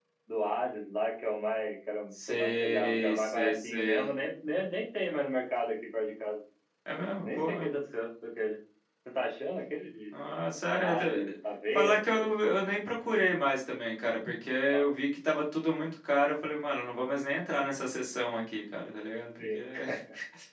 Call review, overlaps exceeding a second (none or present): present